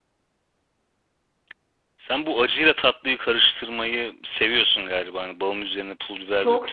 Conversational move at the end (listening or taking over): taking over